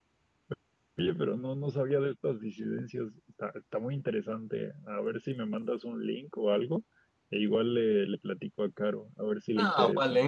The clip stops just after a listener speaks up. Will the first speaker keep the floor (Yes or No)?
No